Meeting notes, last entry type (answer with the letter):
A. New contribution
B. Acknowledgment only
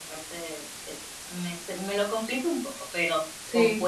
B